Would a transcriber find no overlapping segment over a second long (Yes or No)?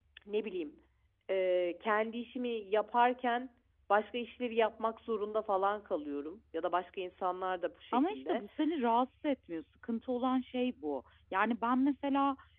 Yes